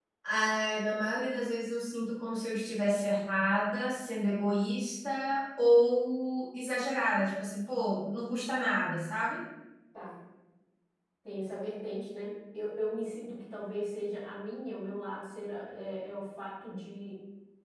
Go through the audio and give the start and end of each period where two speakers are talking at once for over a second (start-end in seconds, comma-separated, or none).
none